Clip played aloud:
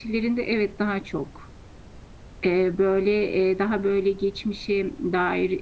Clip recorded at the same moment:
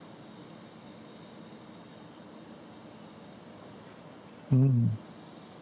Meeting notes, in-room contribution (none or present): present